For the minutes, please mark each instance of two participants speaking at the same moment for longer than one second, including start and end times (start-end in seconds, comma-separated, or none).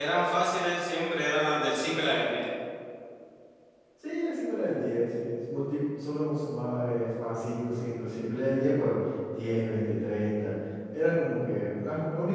none